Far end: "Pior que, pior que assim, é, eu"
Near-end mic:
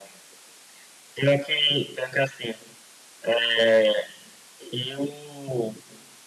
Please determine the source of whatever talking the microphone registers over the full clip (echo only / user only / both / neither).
echo only